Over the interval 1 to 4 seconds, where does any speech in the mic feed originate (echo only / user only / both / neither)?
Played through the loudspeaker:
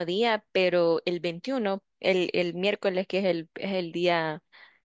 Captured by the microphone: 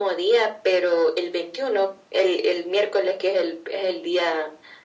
echo only